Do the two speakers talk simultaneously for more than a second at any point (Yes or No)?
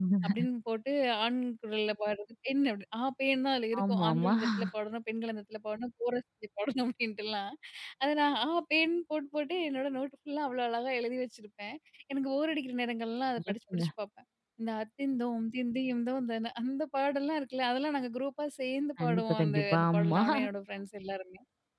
Yes